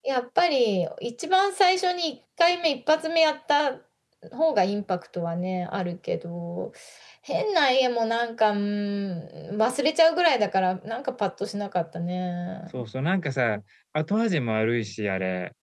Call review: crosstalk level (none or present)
none